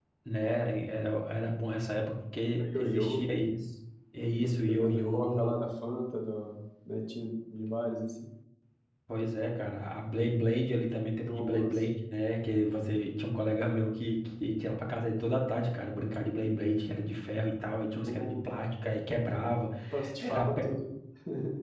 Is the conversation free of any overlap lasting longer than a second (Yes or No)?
No